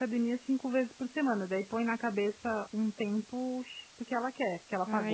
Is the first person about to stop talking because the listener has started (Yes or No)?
Yes